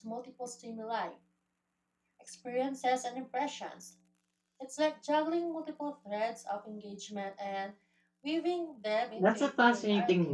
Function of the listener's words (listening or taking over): taking over